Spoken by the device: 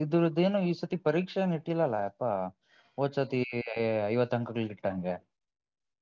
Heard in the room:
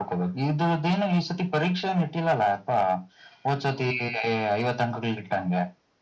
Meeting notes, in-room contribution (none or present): none